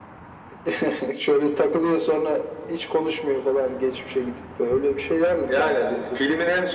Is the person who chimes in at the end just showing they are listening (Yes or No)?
No